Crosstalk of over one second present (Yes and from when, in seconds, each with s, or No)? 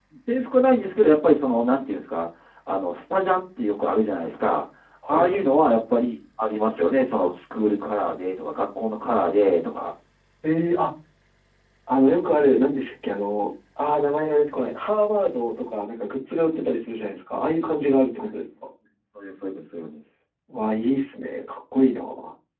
No